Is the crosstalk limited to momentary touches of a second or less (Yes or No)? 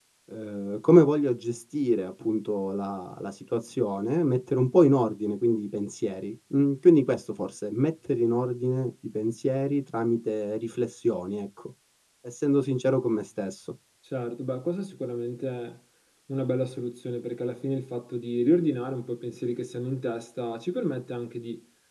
Yes